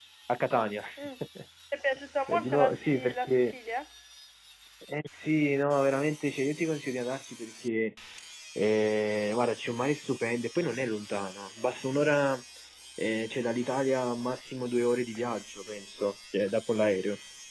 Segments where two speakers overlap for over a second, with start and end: 2.3-3.5

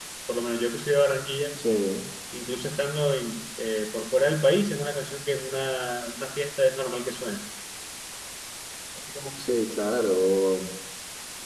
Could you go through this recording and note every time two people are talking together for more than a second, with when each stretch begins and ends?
none

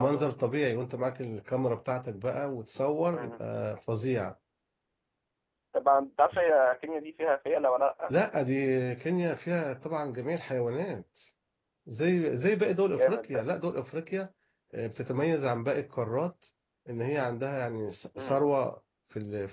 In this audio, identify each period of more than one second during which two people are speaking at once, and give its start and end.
none

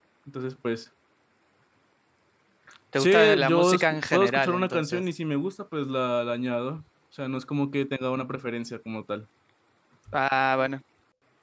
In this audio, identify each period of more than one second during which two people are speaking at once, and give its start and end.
3.0-5.0

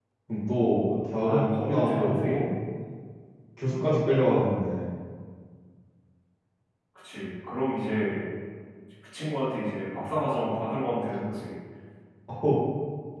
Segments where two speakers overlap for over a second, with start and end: 1.2-2.5

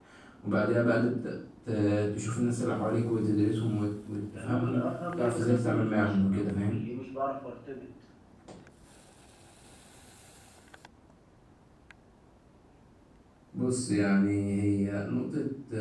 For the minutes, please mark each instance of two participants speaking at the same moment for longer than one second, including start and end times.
4.3-6.8

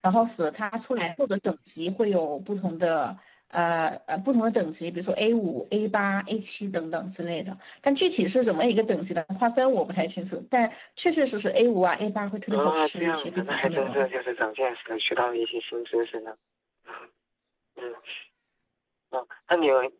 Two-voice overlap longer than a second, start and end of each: 12.5-14.1

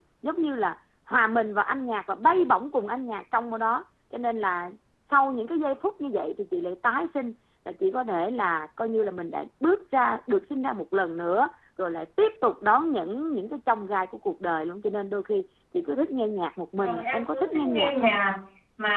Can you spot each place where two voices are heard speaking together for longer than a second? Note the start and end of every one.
16.8-18.1

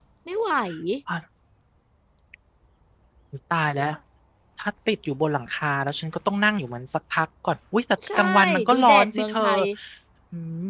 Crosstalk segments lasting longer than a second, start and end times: 8.2-9.4

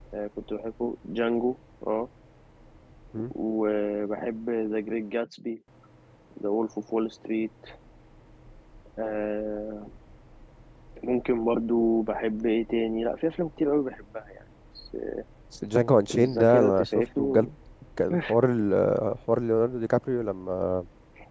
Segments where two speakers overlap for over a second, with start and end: 16.2-17.5

